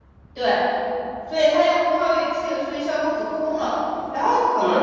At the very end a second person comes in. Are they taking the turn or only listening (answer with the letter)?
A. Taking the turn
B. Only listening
B